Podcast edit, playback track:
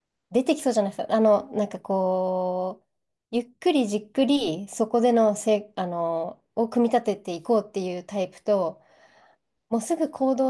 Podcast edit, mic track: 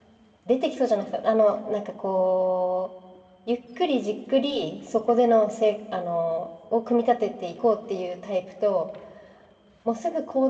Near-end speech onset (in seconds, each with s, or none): none